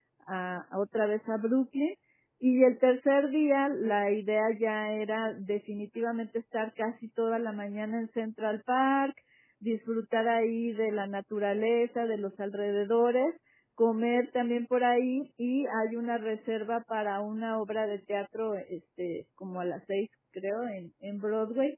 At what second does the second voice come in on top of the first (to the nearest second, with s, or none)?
none